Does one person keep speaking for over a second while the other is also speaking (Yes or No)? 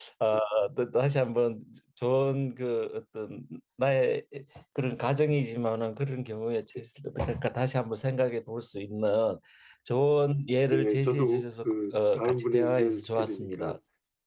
Yes